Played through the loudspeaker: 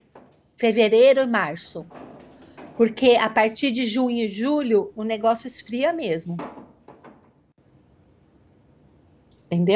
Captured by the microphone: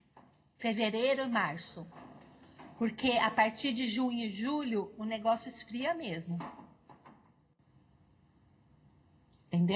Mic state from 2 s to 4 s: echo only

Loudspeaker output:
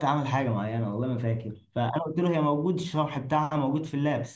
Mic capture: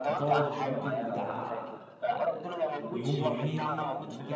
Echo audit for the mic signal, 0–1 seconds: both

